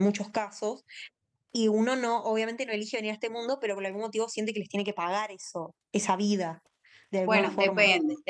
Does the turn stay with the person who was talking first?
No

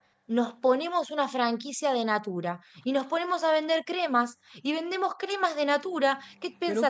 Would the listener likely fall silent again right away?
Yes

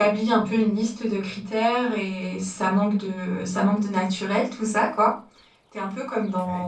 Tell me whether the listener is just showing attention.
Yes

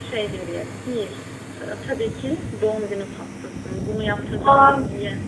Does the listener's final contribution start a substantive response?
No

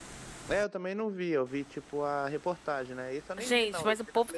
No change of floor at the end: No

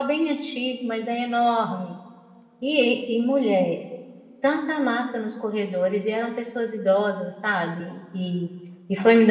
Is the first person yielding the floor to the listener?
No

